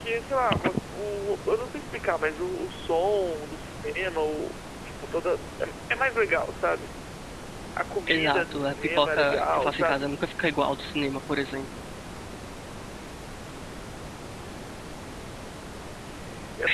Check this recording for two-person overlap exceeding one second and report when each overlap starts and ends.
8.1-10.1

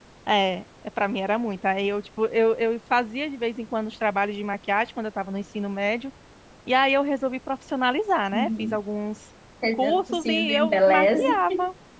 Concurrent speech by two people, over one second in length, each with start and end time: 9.7-11.4

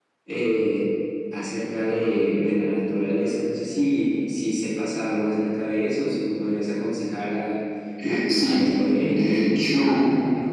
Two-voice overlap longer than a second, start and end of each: 8.1-9.5

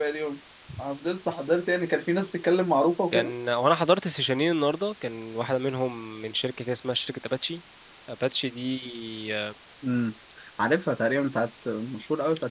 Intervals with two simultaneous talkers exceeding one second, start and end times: none

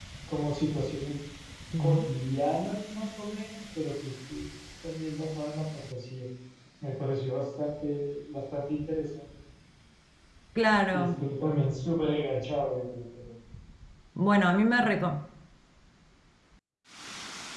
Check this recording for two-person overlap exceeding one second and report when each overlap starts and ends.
none

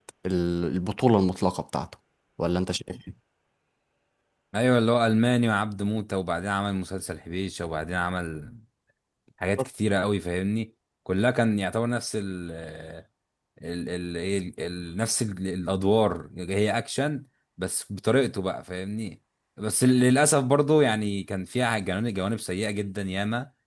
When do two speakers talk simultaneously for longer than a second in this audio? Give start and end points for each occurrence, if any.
none

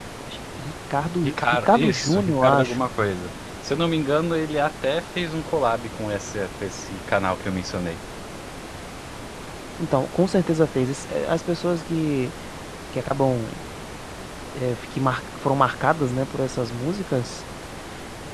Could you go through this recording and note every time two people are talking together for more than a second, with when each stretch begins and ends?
1.2-2.9

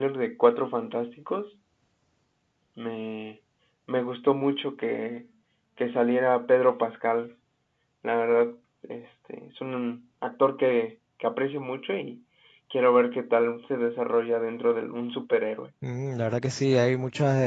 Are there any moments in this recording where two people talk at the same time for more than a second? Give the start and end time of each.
none

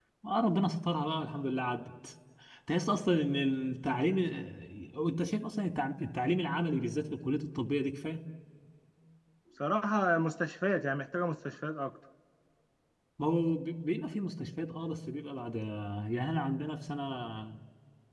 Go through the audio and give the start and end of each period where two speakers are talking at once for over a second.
none

